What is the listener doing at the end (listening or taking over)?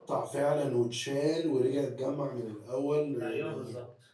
taking over